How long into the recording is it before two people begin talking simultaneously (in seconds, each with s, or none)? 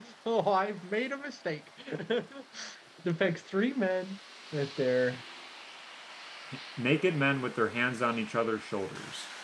none